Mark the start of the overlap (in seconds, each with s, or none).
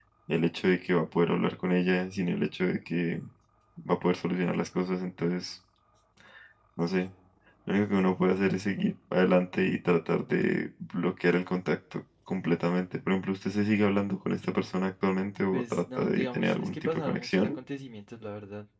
15.5 s